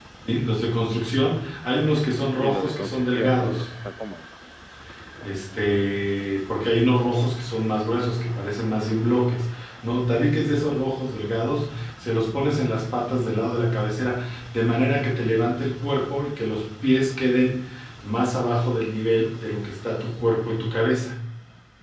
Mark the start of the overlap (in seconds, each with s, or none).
2.4 s